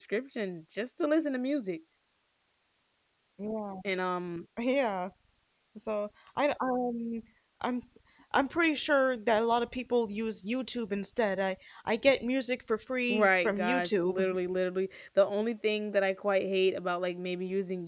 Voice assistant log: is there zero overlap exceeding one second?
No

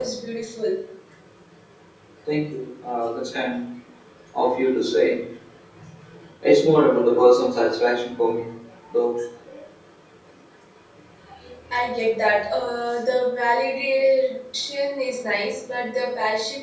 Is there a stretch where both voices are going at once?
No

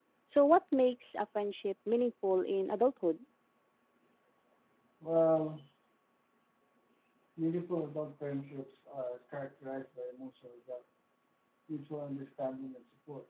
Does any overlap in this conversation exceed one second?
No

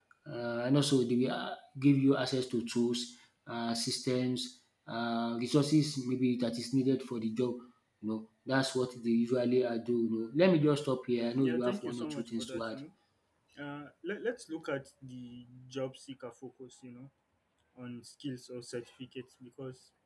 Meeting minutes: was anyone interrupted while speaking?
Yes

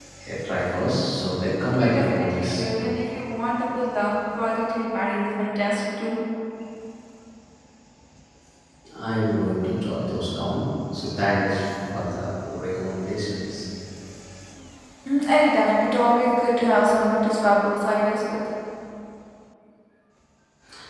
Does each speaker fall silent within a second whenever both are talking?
No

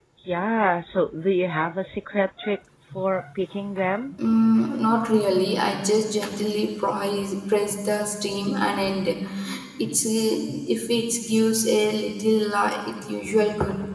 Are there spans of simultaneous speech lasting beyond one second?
No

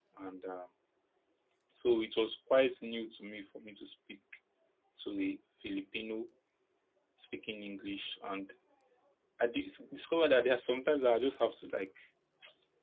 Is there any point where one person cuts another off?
No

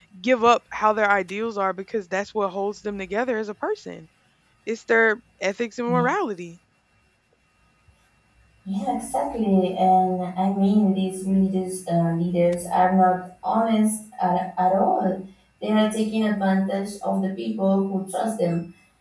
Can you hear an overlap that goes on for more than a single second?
No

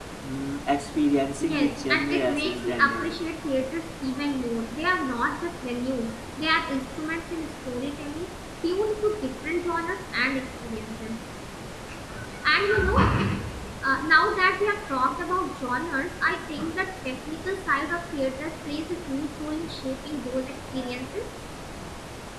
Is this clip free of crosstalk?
No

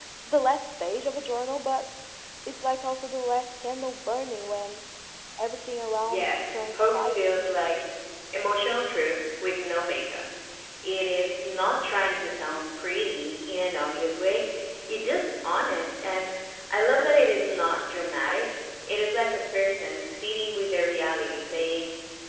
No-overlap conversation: No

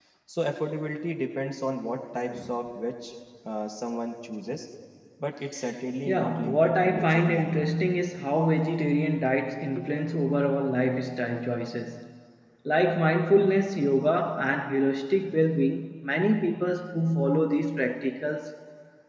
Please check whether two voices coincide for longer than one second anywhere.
Yes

